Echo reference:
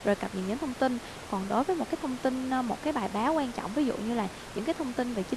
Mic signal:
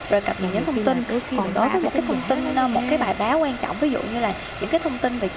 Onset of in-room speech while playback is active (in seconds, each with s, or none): 0.4 s